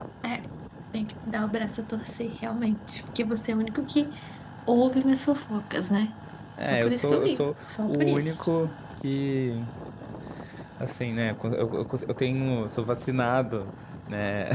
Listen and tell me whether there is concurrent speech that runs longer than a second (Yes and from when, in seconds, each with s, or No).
Yes, from 6.6 s